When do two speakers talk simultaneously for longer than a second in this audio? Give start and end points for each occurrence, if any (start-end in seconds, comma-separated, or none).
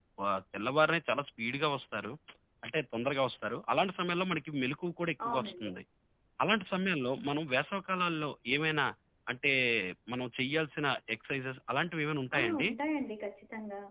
none